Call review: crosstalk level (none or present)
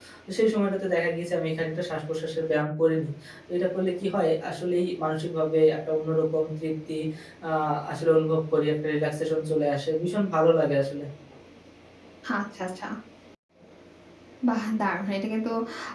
none